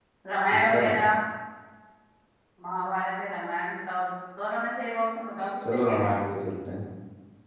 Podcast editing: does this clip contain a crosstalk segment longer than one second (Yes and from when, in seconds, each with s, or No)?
No